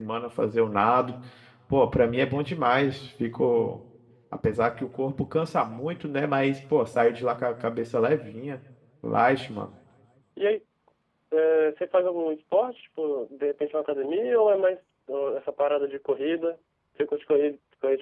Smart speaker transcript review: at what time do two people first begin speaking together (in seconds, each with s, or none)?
none